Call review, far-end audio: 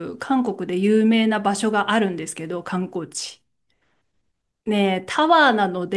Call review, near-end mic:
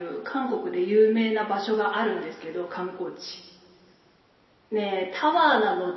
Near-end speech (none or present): none